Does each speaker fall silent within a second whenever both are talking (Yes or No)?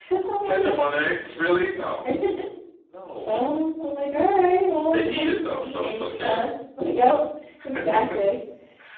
No